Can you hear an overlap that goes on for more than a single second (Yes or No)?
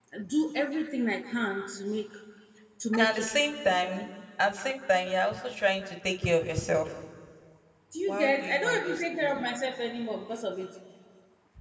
Yes